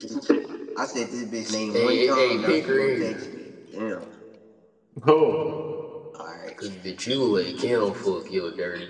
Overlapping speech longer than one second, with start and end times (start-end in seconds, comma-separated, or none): 1.7-3.2